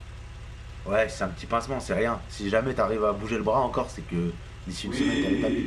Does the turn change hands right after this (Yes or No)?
Yes